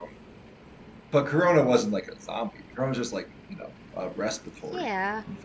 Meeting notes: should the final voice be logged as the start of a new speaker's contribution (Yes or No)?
Yes